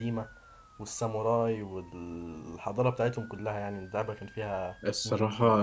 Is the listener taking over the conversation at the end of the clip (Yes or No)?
Yes